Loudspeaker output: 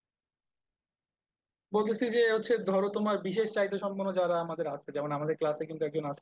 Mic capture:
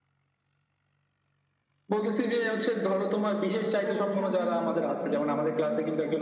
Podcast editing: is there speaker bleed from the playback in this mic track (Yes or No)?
Yes